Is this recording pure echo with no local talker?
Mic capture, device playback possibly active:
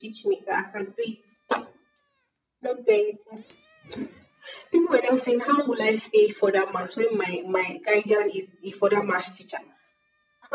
Yes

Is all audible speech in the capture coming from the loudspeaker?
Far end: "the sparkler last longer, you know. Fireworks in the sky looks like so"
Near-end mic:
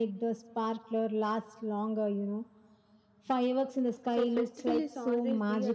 No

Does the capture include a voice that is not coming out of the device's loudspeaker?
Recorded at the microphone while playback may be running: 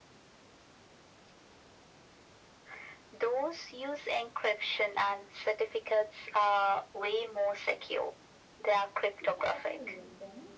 Yes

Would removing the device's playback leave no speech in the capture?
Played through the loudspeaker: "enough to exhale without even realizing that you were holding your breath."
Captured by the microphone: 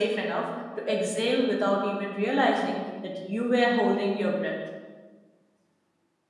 Yes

